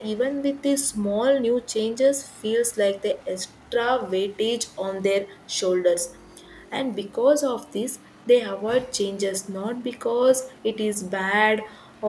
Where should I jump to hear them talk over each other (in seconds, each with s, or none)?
none